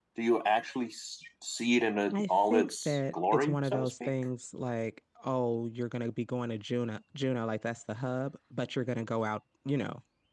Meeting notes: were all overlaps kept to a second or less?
No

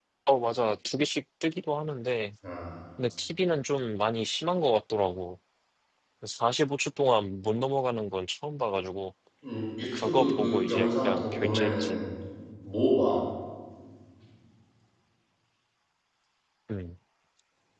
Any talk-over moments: Yes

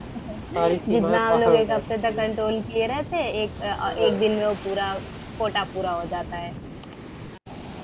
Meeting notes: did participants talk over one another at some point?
Yes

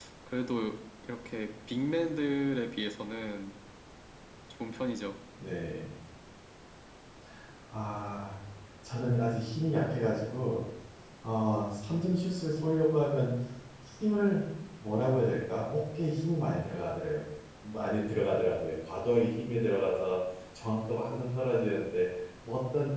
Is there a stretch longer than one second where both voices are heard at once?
No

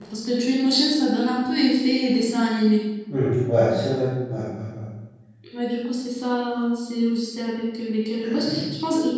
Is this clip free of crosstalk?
Yes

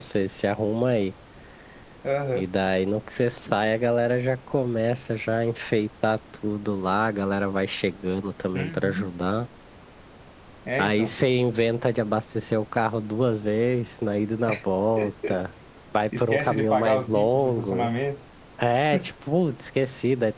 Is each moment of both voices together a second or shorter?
No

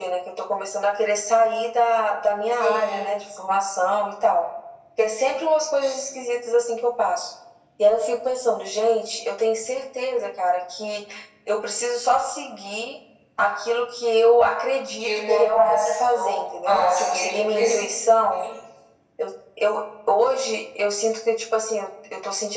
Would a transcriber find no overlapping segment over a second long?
No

